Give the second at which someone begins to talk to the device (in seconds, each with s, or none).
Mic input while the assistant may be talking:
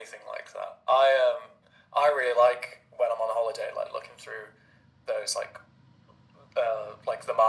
none